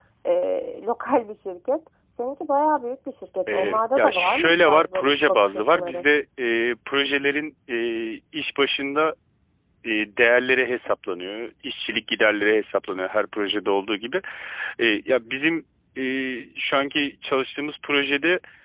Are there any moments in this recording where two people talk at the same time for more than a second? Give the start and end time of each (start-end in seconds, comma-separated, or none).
3.5-6.0